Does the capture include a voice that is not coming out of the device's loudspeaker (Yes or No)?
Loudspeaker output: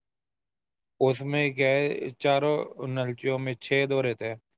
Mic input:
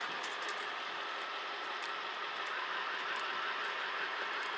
No